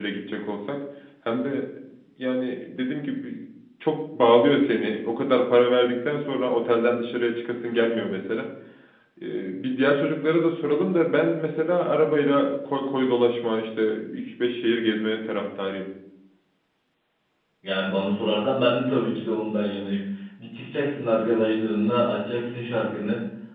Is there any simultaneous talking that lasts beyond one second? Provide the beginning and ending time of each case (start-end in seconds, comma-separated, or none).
none